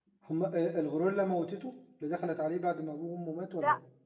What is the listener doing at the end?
taking over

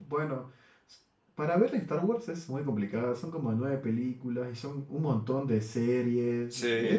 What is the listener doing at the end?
listening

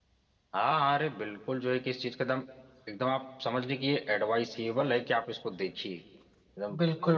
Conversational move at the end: taking over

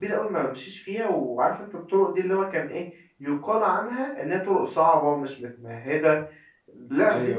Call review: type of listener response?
listening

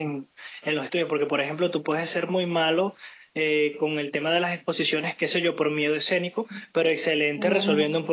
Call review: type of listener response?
listening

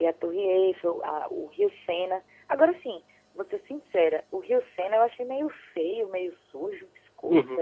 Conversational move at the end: taking over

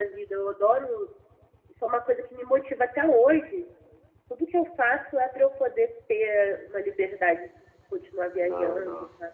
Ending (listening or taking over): taking over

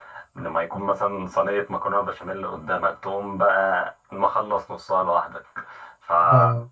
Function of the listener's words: listening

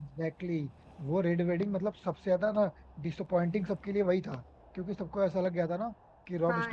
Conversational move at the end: listening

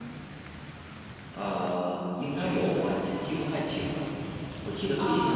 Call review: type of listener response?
listening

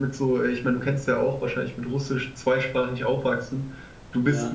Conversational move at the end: listening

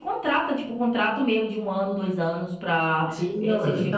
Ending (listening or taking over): taking over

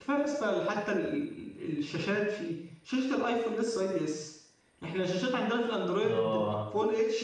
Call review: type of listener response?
listening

